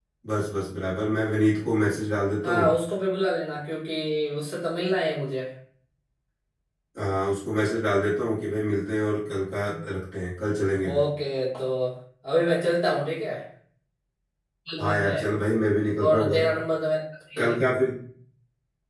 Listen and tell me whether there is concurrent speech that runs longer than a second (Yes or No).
No